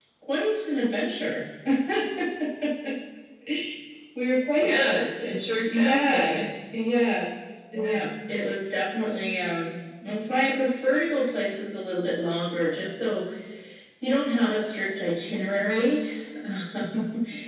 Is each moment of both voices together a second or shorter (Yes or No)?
No